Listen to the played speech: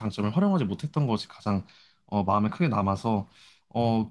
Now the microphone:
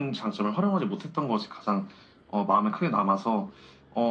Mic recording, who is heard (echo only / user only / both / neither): echo only